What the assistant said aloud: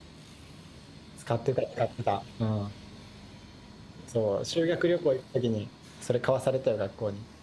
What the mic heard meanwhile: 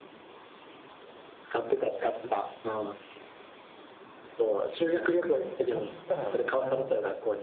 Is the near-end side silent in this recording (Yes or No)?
No